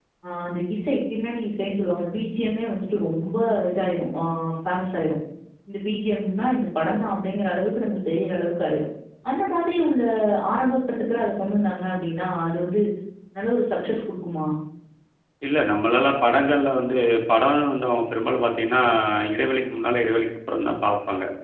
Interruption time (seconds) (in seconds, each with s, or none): none